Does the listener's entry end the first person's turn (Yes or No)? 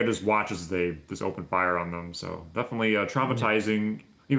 No